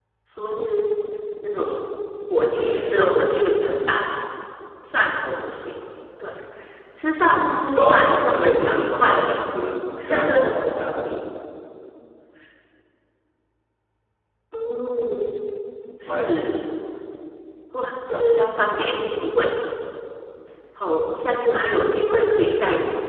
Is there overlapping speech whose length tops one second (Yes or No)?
Yes